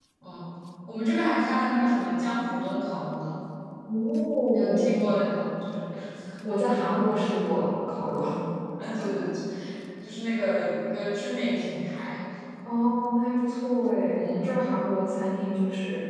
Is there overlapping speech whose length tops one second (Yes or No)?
No